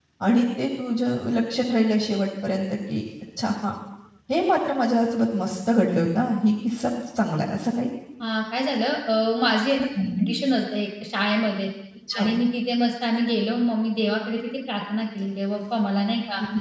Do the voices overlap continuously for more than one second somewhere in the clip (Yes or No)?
No